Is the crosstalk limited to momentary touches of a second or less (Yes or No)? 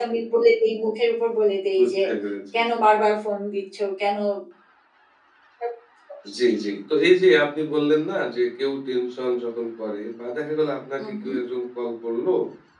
Yes